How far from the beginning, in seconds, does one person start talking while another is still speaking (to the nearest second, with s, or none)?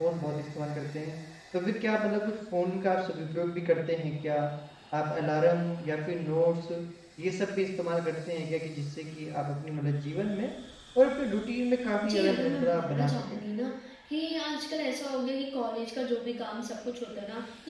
12 s